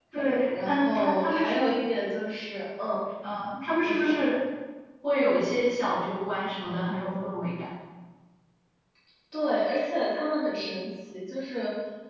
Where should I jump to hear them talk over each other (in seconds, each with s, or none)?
0.5 s